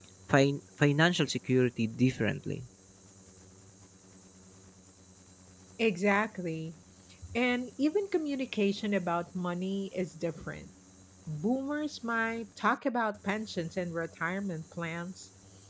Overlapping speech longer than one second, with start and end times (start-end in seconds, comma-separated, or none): none